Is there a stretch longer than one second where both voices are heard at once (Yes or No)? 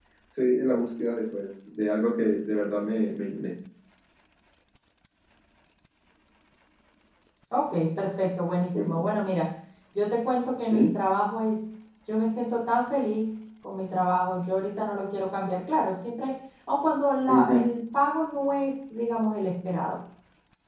No